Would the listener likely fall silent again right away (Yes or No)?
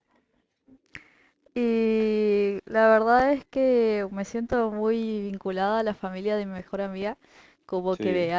Yes